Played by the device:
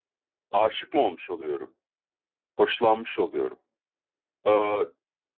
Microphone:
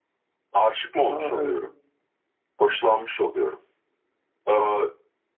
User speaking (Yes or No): Yes